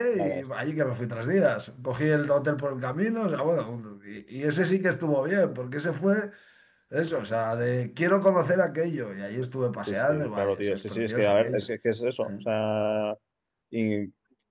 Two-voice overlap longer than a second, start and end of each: 9.9-11.7

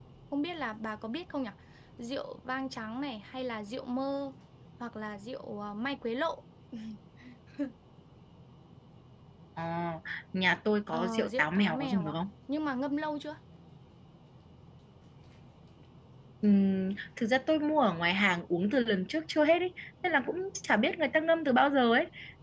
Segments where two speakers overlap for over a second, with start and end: 10.9-12.2

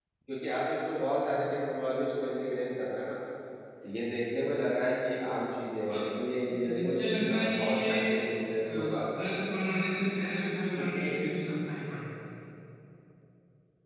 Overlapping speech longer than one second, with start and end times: 6.5-8.2

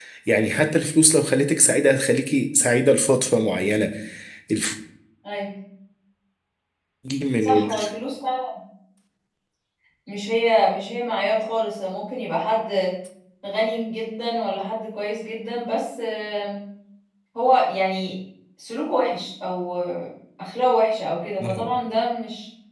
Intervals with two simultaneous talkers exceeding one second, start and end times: none

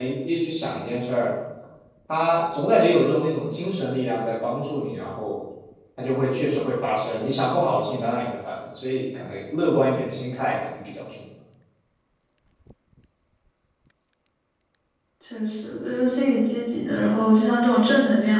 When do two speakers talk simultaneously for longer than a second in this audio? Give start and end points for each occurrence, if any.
none

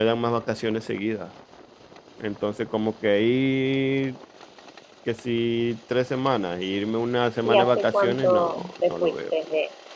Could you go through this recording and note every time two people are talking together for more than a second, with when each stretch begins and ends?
7.4-9.2

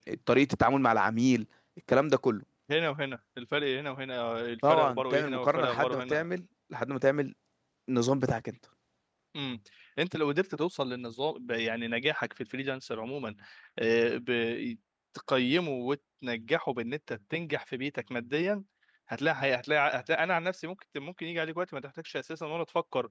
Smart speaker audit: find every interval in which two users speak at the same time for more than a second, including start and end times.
4.7-6.2

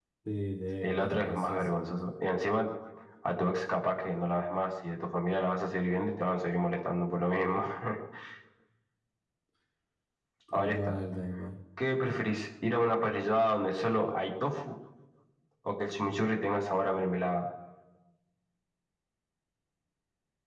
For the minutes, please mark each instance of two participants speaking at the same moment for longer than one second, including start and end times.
0.8-2.0

